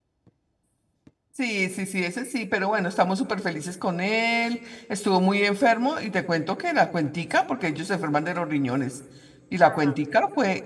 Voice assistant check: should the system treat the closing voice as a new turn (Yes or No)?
No